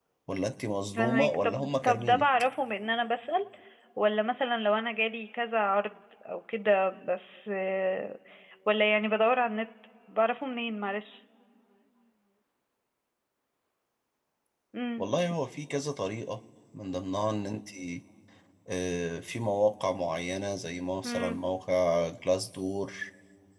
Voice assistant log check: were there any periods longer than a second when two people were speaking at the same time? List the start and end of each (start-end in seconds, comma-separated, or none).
1.0-2.2